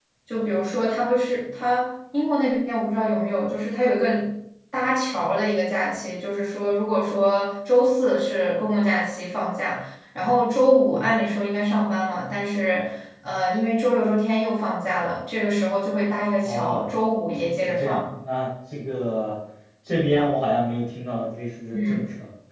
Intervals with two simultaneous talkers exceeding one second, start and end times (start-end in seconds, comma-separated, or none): none